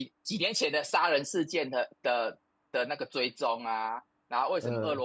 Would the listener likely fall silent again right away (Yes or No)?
Yes